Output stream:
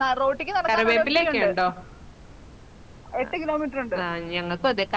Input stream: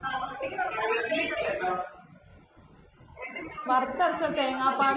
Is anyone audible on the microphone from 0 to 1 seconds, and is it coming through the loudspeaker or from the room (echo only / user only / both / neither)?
echo only